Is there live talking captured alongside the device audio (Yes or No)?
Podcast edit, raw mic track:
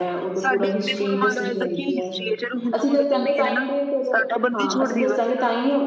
Yes